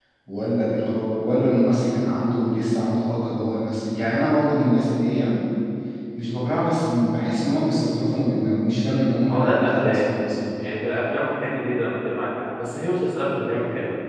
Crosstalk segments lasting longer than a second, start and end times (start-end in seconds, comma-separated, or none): 8.9-10.1